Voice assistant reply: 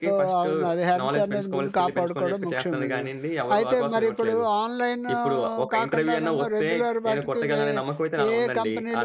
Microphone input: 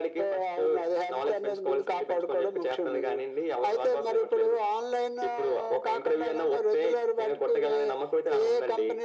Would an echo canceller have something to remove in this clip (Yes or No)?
Yes